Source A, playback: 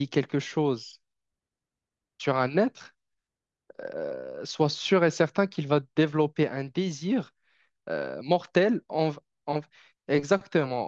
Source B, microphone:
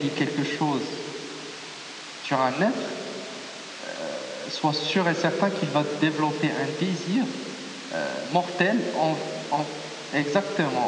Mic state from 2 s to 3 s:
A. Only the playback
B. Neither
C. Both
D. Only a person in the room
A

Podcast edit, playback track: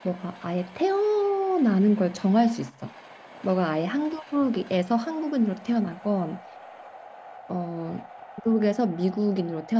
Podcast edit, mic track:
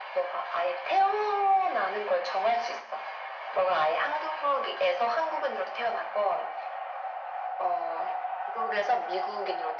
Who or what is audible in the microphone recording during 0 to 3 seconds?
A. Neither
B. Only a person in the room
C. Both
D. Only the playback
D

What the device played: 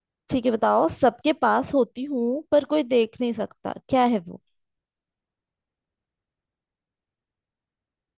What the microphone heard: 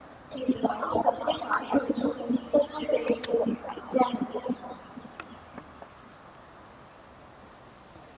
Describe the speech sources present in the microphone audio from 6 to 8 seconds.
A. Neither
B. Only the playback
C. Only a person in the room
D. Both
A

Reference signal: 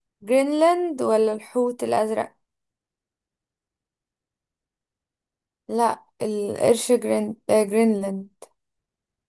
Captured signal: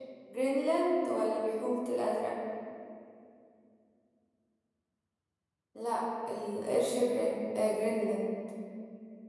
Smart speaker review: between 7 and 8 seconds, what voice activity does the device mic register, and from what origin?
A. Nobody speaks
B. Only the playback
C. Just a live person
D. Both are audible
B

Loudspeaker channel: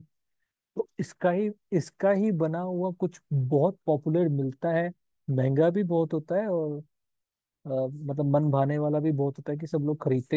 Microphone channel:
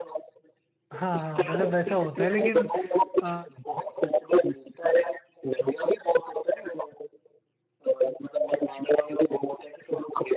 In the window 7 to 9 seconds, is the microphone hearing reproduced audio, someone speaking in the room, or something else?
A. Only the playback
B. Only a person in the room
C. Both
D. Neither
A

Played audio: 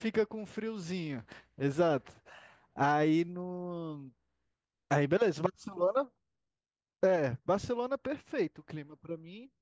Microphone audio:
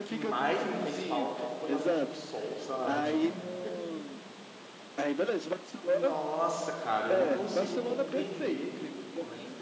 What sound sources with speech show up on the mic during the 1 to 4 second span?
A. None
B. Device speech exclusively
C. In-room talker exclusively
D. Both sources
D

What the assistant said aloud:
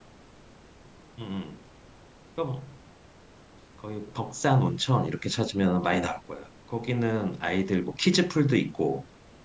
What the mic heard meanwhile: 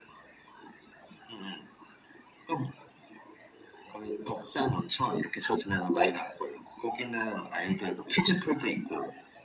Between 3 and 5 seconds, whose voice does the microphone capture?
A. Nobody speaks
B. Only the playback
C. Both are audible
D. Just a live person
B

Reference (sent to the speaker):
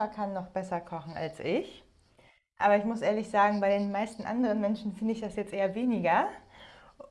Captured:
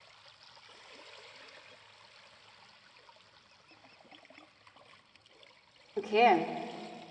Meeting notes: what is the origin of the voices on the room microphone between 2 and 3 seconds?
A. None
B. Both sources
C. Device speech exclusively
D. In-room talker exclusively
A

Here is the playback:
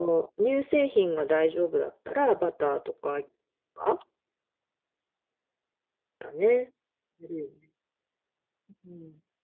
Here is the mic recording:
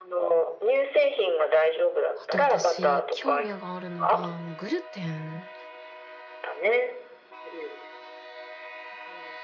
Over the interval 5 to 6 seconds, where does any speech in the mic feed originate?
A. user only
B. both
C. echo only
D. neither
A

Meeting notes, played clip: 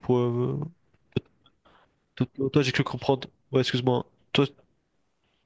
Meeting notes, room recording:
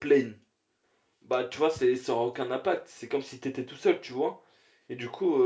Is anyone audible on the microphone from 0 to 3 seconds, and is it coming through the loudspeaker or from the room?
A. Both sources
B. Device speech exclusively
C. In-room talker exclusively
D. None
C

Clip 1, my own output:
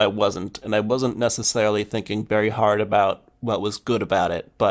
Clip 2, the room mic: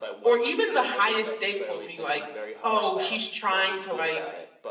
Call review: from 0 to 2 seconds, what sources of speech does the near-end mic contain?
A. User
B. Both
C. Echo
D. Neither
B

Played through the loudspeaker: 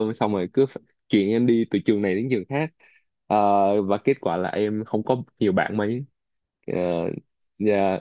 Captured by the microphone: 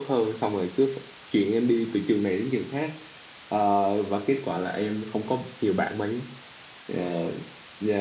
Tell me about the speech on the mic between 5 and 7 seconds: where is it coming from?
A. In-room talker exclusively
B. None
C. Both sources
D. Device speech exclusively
D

